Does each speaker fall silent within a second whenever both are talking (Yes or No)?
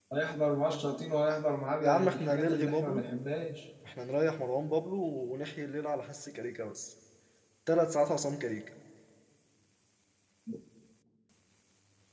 No